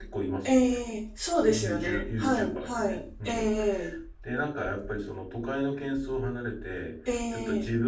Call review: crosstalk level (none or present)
present